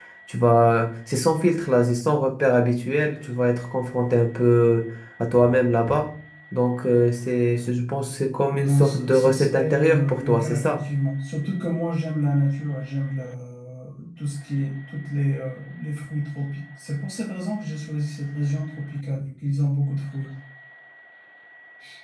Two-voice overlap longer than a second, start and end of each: 8.5-10.8

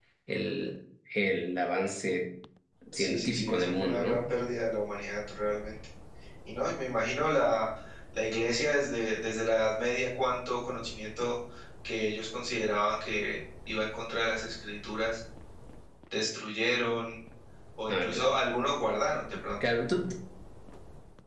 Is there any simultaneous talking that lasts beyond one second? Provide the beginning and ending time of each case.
3.0-4.3

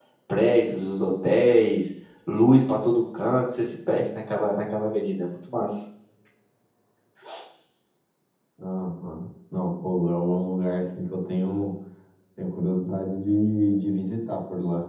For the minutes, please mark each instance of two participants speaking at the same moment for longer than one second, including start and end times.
none

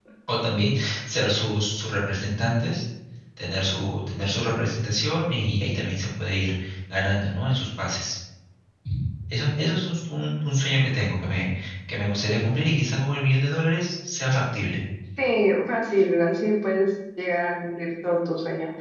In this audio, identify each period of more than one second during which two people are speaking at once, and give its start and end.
none

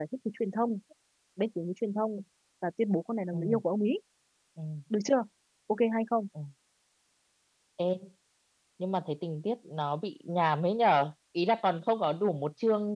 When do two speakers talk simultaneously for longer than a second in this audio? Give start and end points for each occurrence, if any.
none

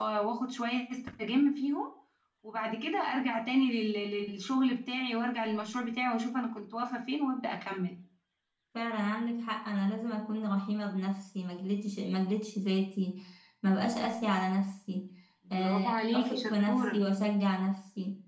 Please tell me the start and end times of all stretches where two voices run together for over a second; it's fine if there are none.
15.6-17.0

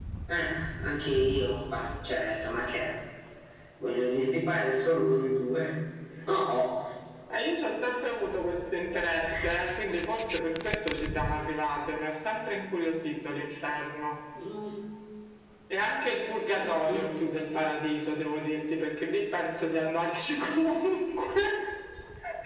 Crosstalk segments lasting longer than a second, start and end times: none

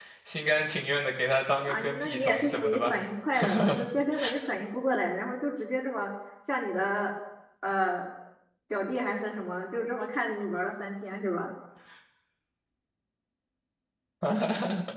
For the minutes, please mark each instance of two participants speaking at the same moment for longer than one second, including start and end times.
1.7-3.0

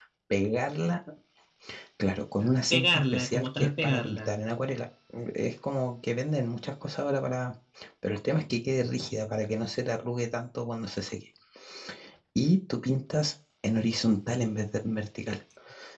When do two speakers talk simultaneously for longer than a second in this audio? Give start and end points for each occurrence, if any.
2.7-4.2

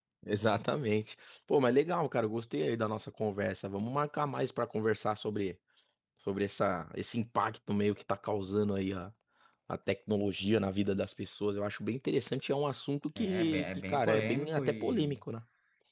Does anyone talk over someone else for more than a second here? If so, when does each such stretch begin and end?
13.2-15.2

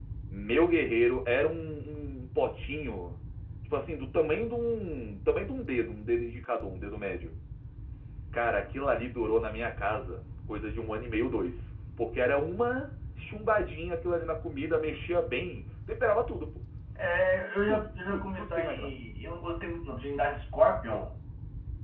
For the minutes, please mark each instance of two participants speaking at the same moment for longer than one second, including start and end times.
17.7-18.9

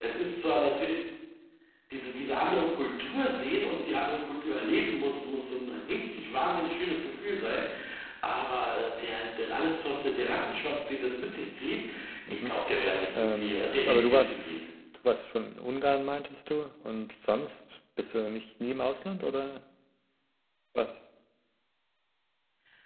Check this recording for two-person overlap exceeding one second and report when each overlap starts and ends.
13.1-14.4

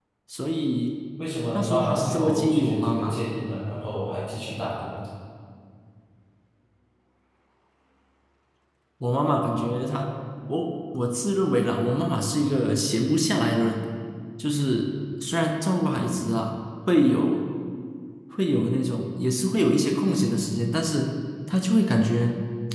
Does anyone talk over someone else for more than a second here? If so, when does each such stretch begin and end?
1.5-3.2

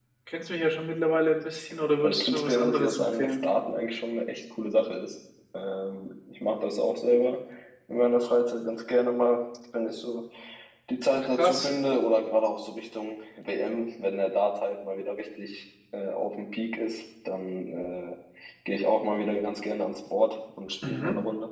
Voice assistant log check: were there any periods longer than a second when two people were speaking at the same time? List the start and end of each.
2.0-3.3

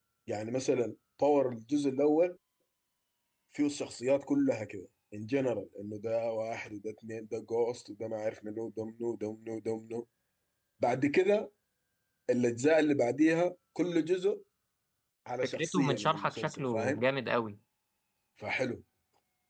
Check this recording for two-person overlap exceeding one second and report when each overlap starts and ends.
15.4-17.0

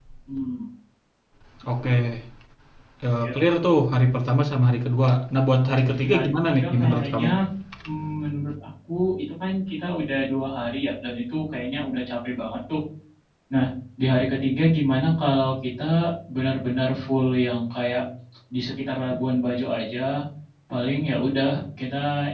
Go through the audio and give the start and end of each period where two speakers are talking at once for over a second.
5.7-7.3

